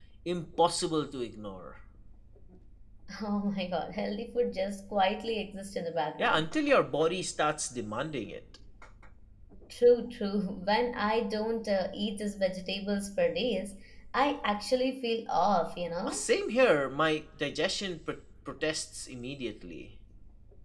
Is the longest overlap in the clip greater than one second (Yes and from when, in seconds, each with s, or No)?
No